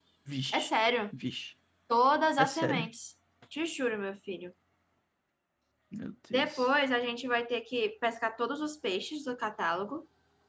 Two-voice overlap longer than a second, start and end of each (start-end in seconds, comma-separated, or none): none